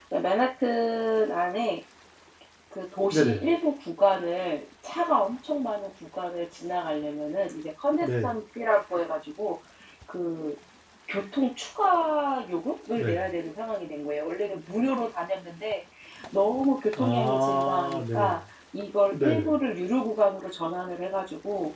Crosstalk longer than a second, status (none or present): present